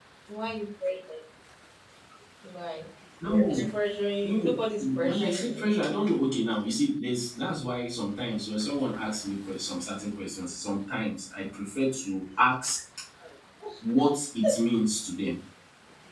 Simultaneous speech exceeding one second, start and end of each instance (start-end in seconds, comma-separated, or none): 4.2-5.7